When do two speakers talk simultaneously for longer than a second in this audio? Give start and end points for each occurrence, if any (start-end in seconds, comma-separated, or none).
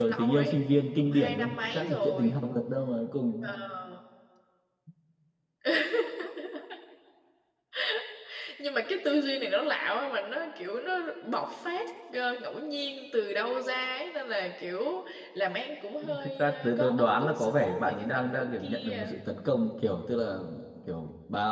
1.0-2.4, 16.2-19.1